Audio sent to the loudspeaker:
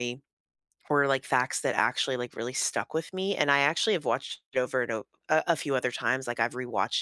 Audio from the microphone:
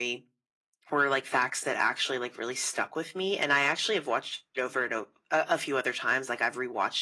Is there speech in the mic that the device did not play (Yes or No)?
No